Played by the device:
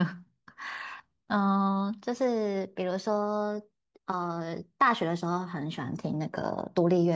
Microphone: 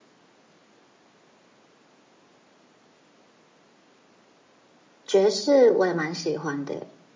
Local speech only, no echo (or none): 爵士我也蛮喜欢的耶。